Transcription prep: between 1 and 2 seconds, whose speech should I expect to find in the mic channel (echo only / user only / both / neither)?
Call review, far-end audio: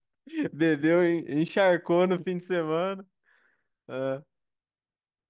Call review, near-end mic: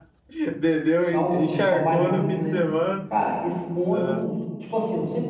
both